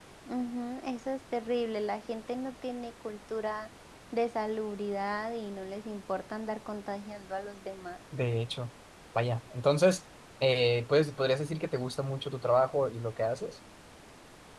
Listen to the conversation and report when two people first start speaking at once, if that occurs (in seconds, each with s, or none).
none